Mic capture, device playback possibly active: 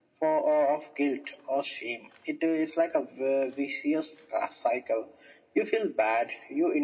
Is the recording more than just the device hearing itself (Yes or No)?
No